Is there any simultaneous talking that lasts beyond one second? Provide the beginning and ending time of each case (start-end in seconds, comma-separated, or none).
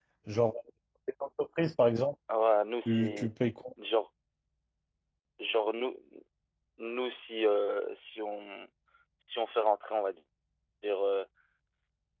none